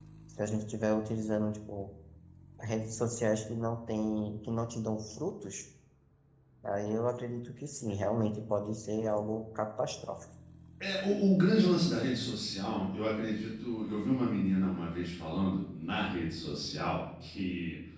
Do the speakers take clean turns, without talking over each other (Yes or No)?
Yes